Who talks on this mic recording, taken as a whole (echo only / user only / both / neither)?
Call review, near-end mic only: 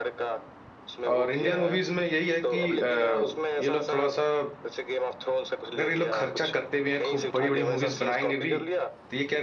both